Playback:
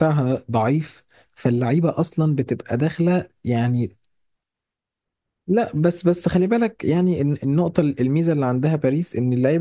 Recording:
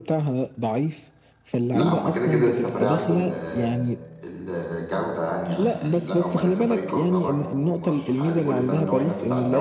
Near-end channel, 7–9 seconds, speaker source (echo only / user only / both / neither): both